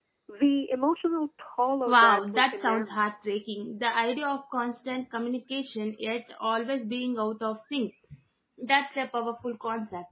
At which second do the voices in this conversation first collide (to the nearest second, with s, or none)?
2 s